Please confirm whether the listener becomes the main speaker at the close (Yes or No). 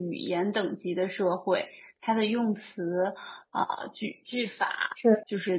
No